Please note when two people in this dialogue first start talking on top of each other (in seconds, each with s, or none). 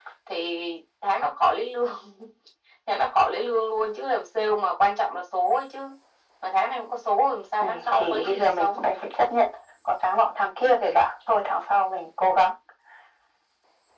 7.6 s